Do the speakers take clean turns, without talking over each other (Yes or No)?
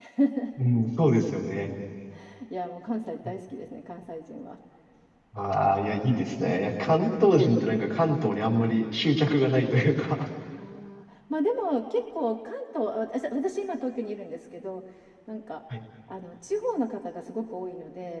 Yes